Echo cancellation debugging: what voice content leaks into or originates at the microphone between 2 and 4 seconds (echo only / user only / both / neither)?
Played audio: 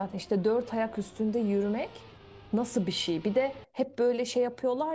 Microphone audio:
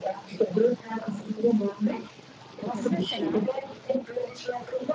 both